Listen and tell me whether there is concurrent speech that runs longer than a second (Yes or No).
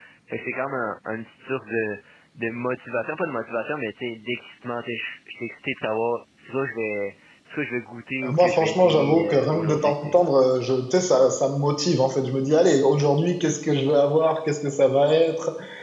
Yes